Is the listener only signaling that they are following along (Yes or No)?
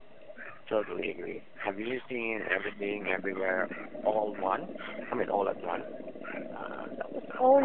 No